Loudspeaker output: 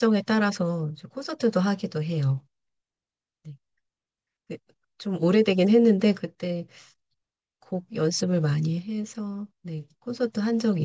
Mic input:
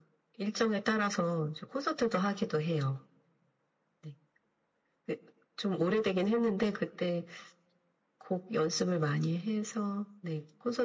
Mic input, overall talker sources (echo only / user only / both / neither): echo only